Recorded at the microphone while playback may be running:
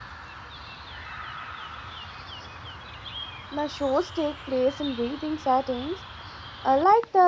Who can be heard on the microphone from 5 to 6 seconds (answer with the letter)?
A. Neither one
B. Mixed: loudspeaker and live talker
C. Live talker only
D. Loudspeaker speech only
C